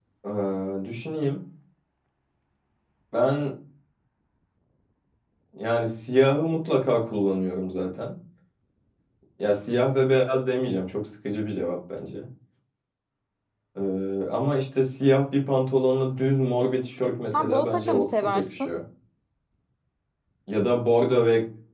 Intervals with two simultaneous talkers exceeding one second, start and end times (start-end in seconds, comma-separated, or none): 17.3-18.7